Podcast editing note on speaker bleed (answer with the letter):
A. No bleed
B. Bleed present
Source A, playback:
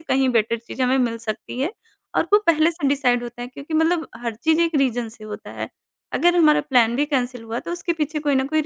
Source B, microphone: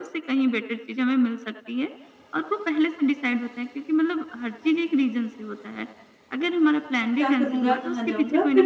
B